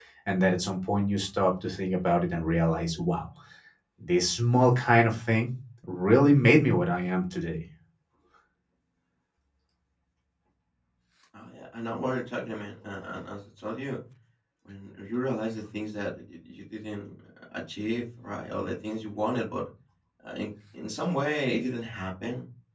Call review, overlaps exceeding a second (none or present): none